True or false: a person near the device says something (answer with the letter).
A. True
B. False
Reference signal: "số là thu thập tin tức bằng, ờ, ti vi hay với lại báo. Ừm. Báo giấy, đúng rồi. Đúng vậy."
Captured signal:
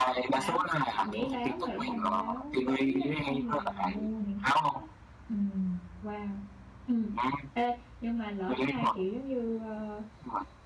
A